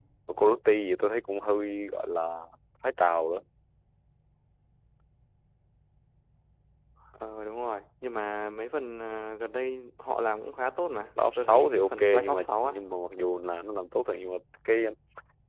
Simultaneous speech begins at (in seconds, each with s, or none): 11.2 s